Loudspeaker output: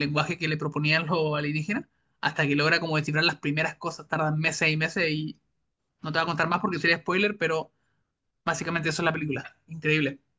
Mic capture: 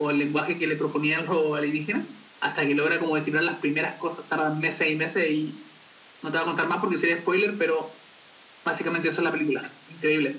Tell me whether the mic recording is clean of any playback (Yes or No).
No